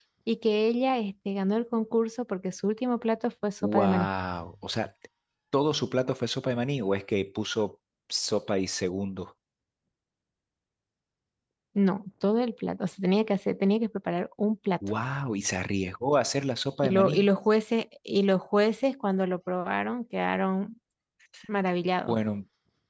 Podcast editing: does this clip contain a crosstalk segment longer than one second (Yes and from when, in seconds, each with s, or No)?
No